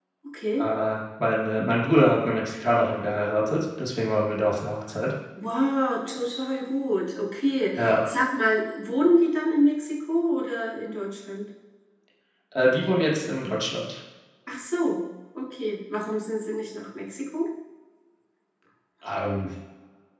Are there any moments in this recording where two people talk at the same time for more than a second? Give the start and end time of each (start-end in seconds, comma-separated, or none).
none